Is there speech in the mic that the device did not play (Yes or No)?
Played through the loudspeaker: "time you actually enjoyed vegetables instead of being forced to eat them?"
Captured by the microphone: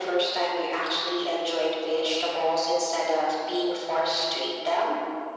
No